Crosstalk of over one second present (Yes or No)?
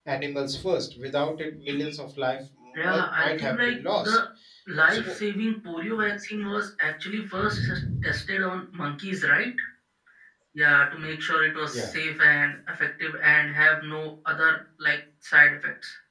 Yes